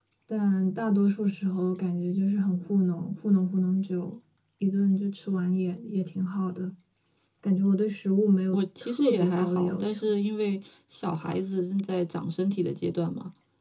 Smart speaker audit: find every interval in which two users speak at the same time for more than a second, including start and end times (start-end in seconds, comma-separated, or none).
8.5-10.0